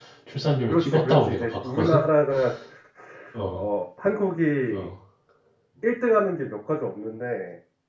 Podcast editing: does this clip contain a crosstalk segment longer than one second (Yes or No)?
Yes